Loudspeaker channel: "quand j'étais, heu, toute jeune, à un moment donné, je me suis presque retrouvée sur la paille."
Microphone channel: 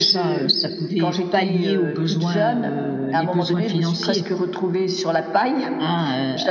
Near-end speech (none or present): present